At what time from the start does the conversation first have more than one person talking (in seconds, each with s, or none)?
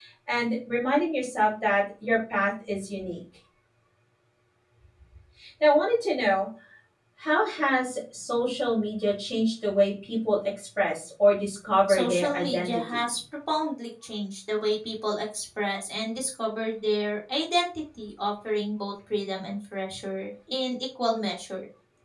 11.9 s